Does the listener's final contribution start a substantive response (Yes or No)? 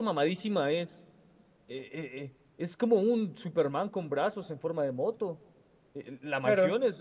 No